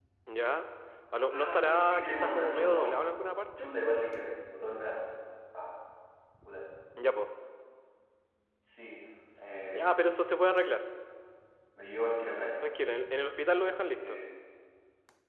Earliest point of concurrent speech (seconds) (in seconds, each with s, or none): 1.3 s